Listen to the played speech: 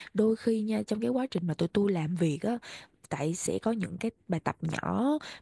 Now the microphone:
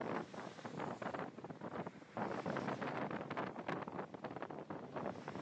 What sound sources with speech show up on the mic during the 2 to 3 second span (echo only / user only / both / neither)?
neither